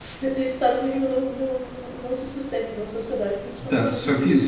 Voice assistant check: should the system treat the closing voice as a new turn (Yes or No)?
Yes